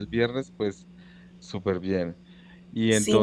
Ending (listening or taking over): taking over